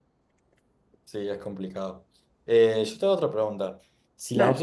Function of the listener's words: listening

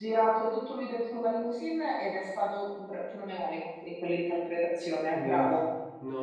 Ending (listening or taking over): taking over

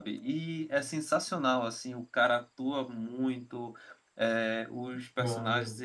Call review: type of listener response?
listening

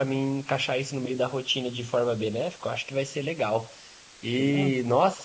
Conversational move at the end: listening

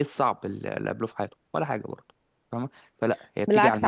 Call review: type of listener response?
taking over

